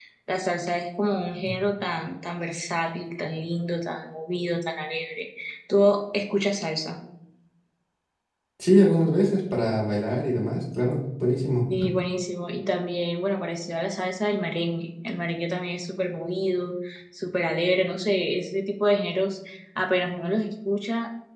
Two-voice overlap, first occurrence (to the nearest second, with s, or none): none